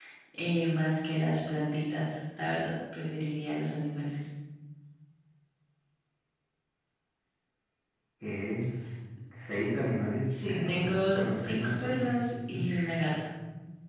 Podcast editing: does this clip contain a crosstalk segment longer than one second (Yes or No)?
Yes